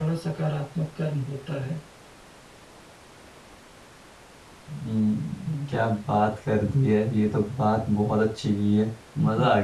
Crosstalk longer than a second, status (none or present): none